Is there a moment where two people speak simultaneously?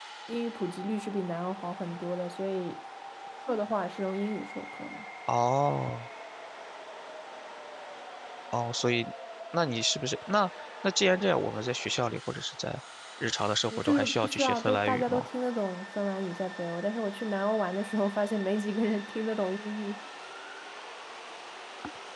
Yes, from 13.7 s

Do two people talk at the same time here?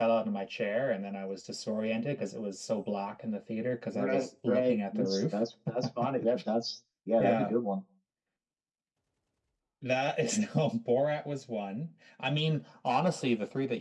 Yes, from 3.9 s

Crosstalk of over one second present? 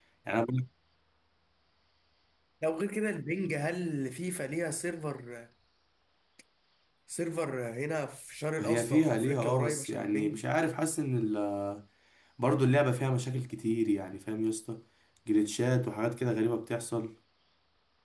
Yes, from 8.6 s

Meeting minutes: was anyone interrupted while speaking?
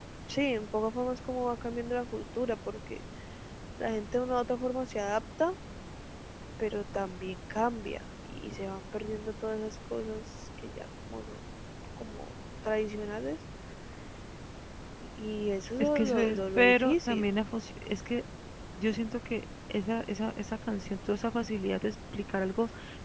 Yes, from 15.8 s

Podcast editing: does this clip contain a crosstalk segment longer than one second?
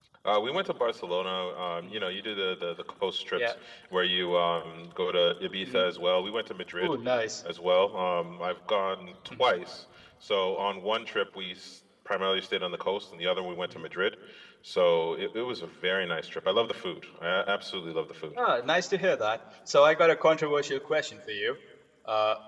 No

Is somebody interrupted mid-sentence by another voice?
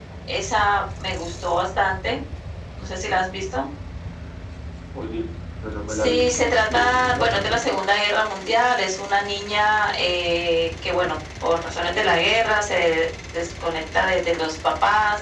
Yes, from 5.9 s

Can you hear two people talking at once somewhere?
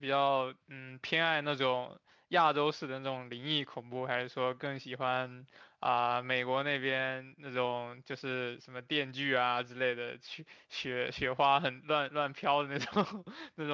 No

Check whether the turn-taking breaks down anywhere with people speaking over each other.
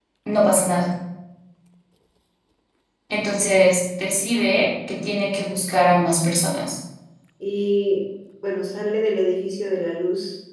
No

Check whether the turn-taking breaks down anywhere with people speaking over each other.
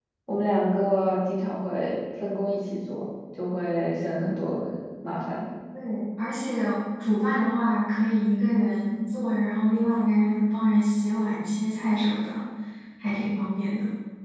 No

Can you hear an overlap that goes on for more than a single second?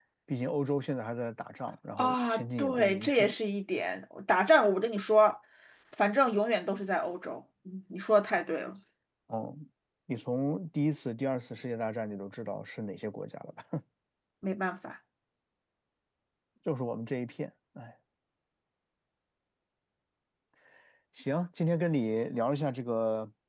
Yes, from 2.0 s

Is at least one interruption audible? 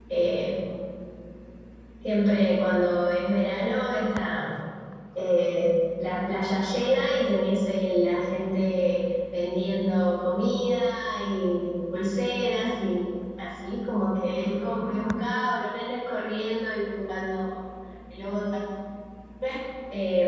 Yes, from 14.2 s

